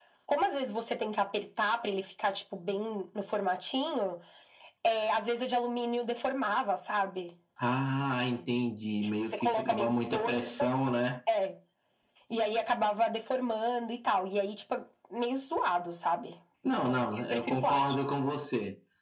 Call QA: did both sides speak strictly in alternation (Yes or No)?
No